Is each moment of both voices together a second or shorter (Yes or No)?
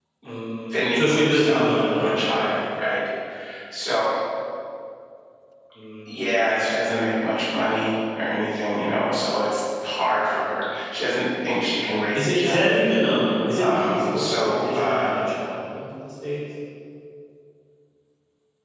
No